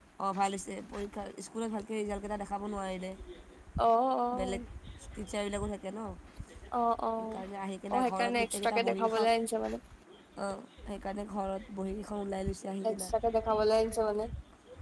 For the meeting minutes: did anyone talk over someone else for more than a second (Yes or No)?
Yes